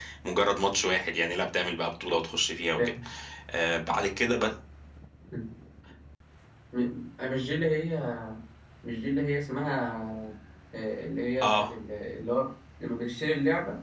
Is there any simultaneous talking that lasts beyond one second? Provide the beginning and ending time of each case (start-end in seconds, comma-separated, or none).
none